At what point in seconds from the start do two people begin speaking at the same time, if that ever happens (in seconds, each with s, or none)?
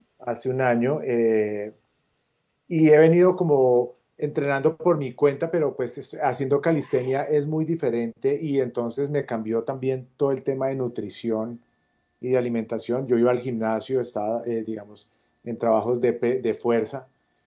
none